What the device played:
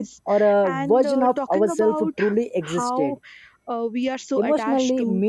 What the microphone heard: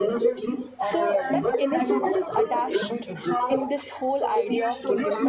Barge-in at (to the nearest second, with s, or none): 1 s